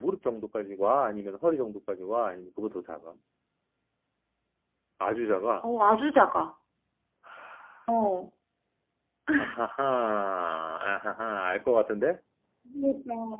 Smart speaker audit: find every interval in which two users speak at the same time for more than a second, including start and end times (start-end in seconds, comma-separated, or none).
none